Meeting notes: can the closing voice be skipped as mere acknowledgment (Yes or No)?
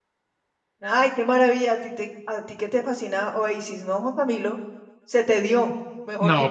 No